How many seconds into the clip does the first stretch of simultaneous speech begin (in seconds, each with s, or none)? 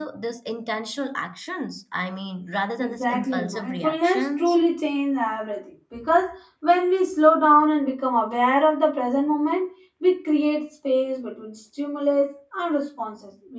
2.8 s